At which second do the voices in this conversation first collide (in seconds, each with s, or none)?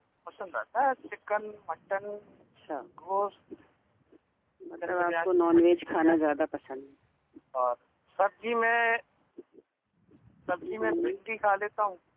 4.9 s